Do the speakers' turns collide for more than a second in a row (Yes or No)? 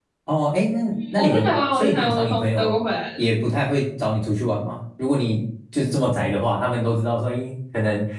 Yes